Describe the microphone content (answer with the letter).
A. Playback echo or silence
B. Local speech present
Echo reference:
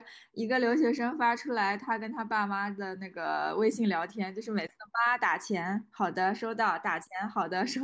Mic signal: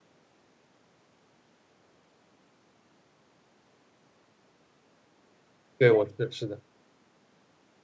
B